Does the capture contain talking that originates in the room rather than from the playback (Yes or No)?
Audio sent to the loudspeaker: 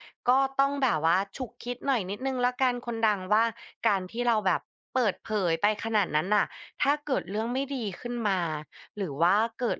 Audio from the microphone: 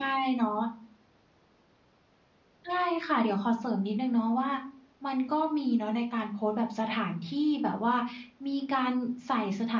Yes